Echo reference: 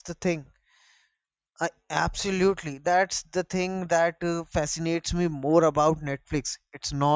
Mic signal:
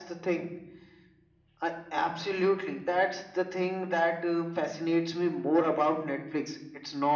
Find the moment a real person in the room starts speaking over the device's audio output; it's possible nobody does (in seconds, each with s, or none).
none